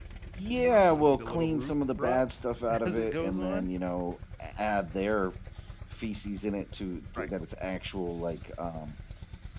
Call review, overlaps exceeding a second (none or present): present